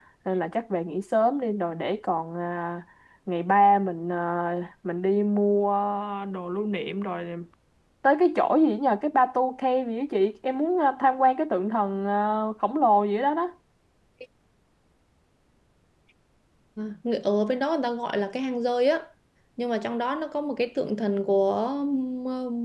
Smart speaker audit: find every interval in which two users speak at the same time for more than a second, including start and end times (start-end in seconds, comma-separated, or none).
none